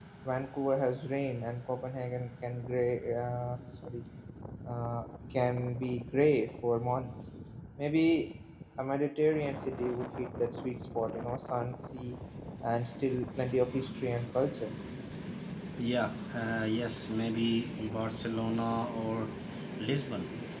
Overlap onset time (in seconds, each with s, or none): none